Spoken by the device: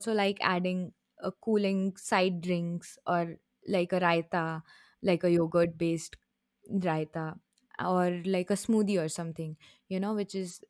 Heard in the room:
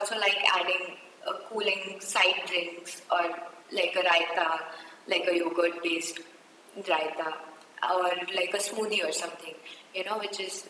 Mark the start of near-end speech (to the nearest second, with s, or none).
none